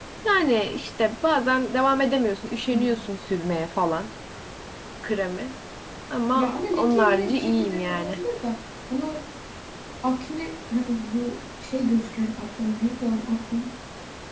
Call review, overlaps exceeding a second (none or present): present